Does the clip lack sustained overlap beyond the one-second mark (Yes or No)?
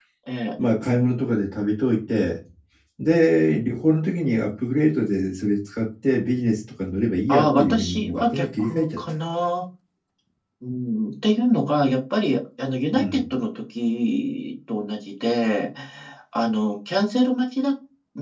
No